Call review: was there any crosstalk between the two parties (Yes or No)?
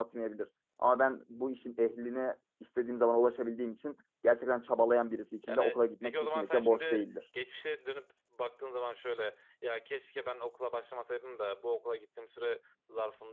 Yes